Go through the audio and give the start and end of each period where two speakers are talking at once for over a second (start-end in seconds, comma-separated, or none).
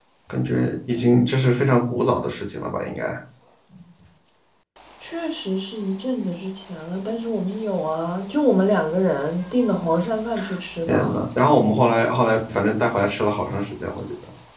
none